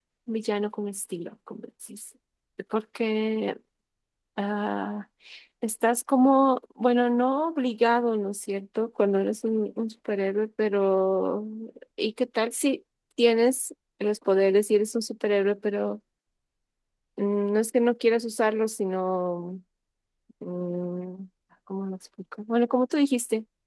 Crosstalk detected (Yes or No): No